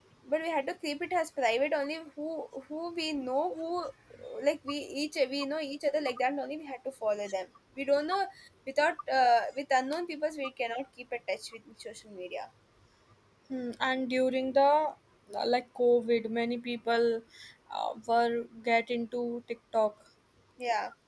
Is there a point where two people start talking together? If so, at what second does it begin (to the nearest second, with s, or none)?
none